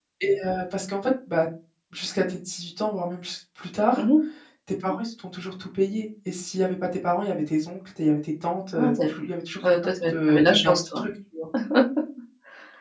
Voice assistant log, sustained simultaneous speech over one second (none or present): present